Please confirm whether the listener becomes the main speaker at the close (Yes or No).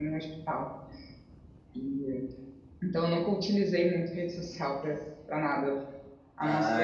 Yes